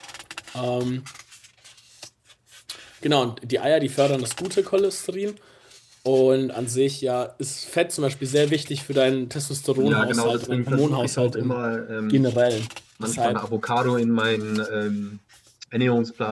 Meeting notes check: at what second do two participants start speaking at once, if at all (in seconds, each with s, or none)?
9.8 s